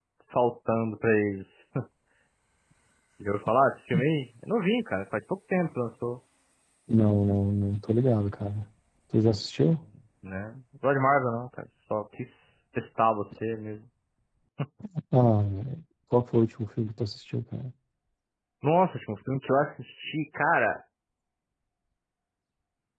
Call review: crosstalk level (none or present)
none